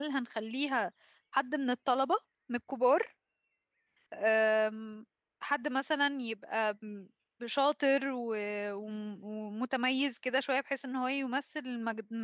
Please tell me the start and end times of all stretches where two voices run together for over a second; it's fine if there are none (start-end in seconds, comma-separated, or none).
none